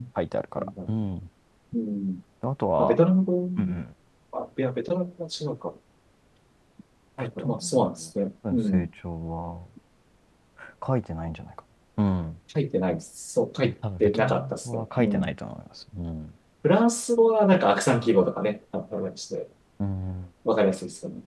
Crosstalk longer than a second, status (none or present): present